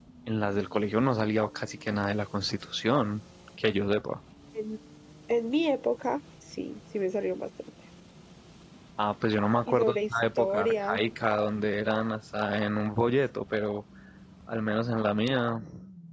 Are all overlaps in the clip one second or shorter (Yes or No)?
No